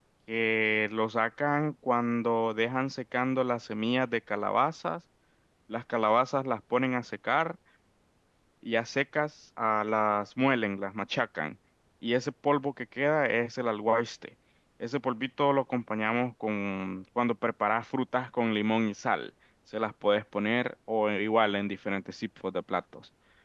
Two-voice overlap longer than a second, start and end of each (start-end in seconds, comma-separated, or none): none